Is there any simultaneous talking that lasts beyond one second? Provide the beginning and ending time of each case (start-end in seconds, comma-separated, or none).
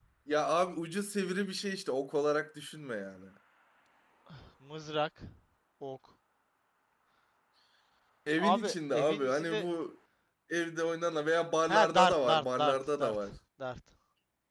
8.4-9.7, 11.7-13.2